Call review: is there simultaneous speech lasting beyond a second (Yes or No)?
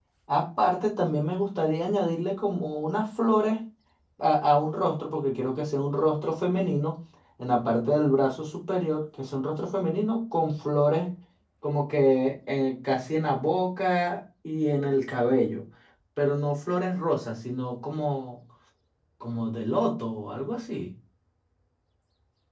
No